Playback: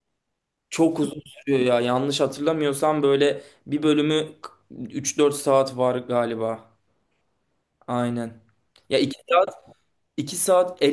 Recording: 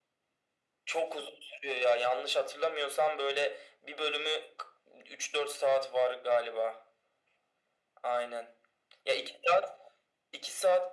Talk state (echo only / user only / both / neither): echo only